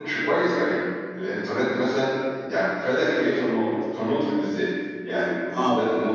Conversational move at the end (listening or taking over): taking over